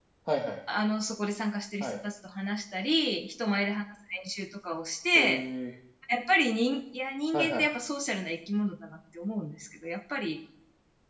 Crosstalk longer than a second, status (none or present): none